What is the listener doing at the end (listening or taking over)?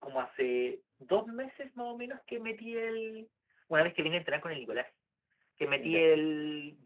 listening